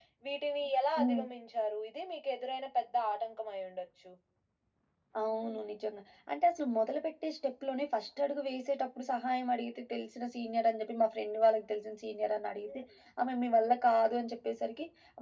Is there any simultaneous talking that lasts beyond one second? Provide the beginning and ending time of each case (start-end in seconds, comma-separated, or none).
none